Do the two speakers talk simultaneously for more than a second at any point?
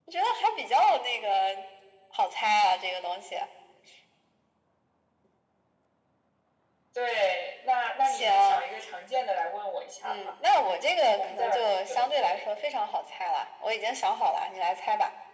Yes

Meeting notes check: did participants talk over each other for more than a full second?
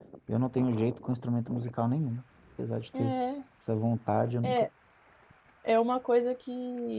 No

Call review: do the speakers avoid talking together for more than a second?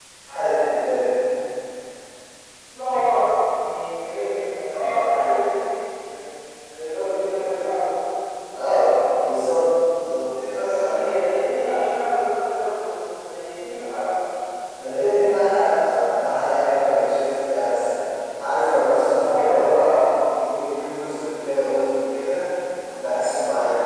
Yes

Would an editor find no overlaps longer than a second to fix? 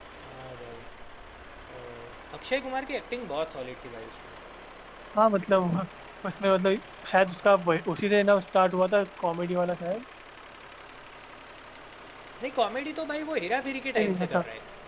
Yes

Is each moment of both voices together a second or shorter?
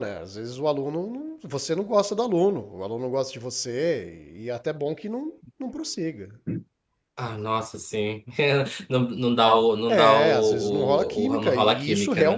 No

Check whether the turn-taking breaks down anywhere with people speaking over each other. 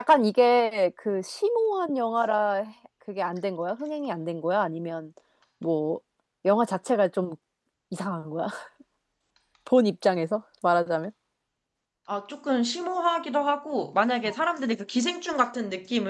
No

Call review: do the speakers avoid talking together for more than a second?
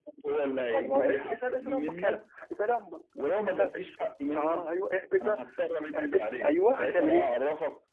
No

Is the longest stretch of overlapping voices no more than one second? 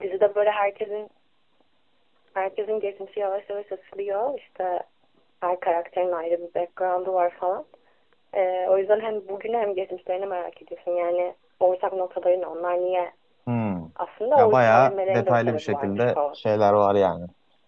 No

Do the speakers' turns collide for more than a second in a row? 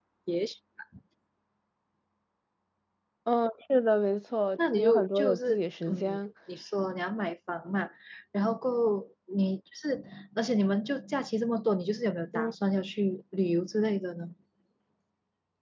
Yes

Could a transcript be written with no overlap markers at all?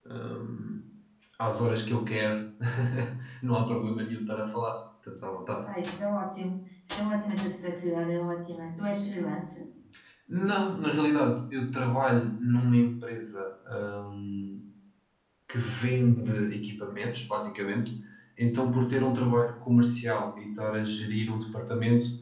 Yes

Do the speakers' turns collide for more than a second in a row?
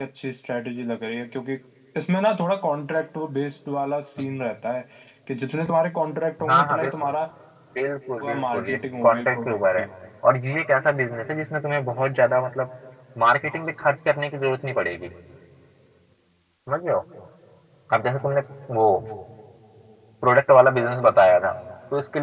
Yes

